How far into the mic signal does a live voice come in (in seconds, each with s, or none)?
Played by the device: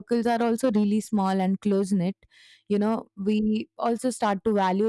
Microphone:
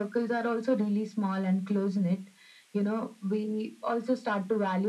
none